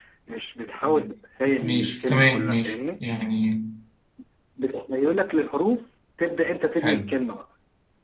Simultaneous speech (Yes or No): Yes